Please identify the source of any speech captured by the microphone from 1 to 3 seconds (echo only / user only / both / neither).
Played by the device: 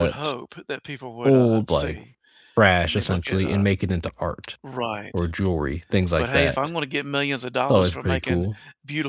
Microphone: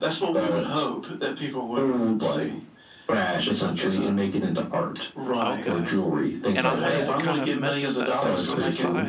echo only